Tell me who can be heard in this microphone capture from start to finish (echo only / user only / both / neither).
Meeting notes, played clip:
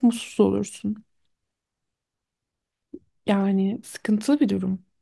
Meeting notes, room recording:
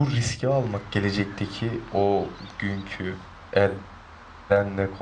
user only